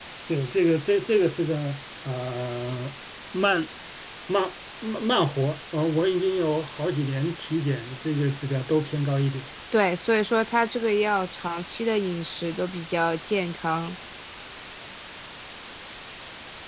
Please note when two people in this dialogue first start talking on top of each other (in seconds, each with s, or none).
none